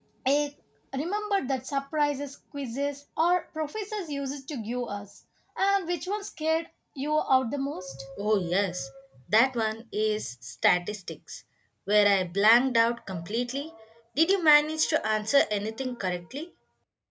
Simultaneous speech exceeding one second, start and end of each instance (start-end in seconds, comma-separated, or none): none